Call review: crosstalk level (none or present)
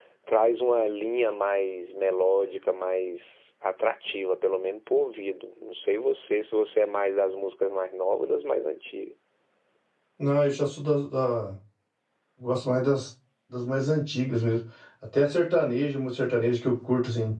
none